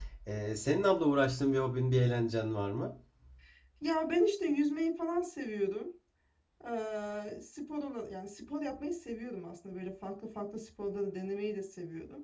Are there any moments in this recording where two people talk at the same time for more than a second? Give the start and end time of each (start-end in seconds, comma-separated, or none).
none